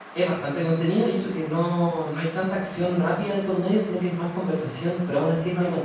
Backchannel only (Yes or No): No